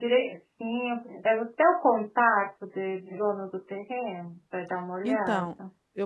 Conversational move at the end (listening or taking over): taking over